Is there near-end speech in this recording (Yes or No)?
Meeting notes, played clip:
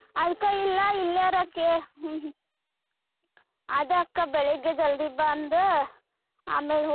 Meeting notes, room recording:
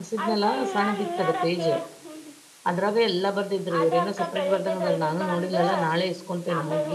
Yes